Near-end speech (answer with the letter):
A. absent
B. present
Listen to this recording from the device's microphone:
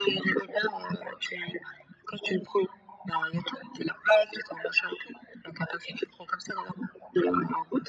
A